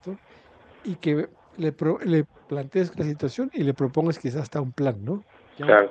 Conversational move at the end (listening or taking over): listening